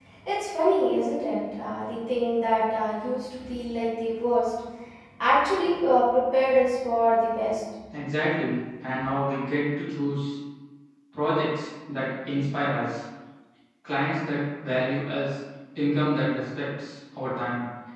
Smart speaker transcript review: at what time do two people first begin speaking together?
none

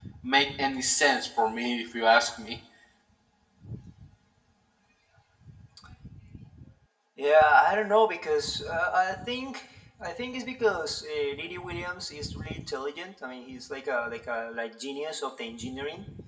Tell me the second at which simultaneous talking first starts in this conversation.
none

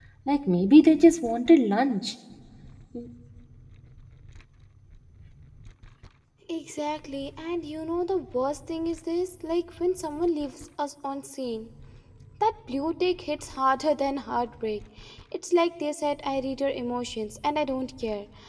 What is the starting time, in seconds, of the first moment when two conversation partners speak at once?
none

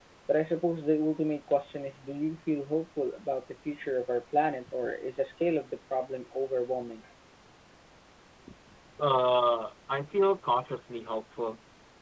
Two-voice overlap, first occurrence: none

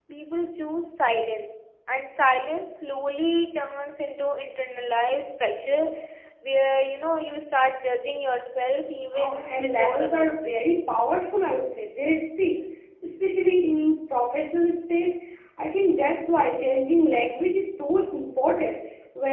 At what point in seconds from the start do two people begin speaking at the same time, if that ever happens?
9.1 s

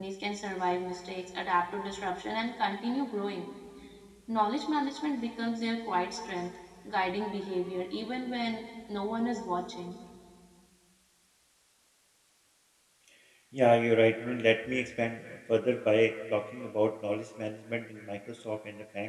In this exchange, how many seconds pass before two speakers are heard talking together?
none

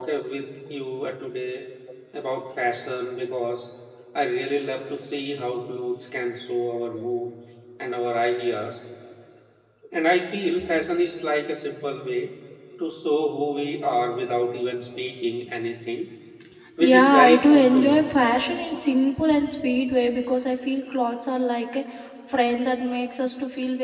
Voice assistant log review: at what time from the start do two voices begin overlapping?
16.8 s

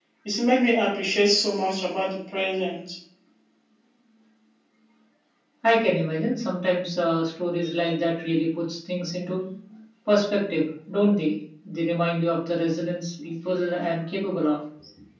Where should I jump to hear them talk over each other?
none

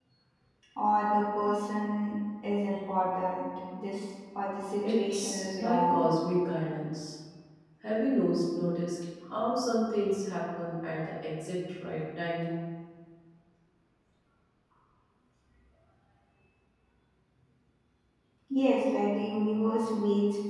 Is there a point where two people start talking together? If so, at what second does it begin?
4.8 s

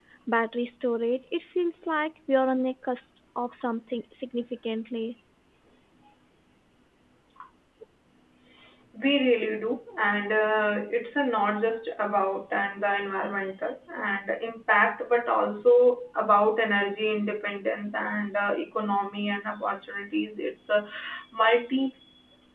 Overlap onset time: none

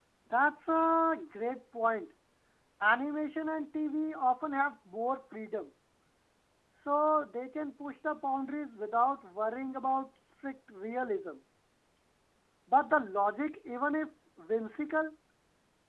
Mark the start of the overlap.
none

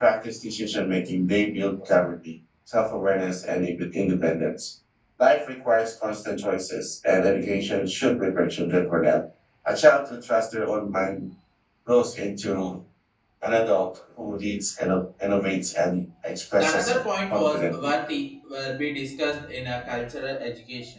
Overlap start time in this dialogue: 16.6 s

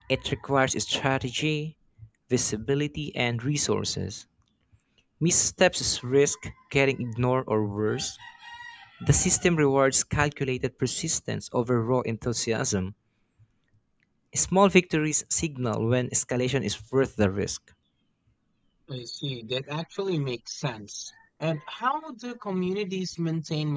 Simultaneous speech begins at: none

